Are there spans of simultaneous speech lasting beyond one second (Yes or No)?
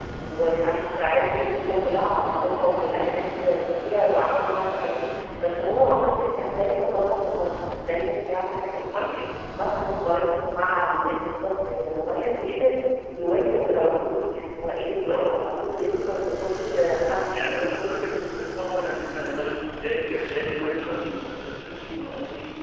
No